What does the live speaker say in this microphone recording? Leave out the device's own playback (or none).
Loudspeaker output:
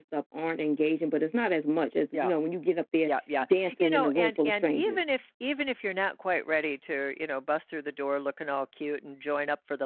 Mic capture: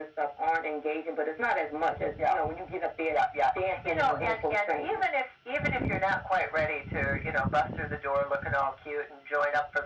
none